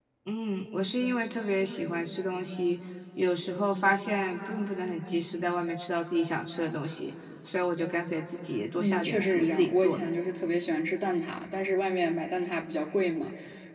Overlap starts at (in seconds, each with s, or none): 8.8 s